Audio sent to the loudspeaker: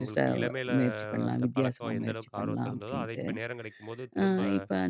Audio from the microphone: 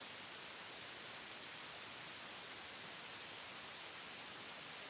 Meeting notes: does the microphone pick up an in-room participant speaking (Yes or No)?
No